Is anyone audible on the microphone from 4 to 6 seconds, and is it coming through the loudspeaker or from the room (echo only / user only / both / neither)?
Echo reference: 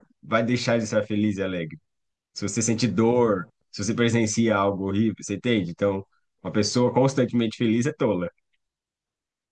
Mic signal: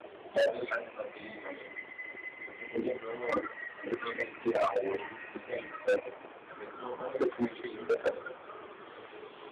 echo only